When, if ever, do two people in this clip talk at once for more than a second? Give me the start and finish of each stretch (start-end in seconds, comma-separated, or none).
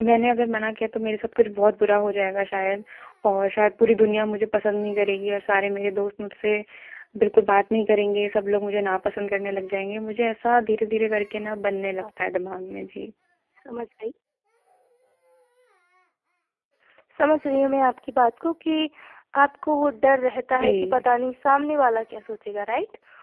none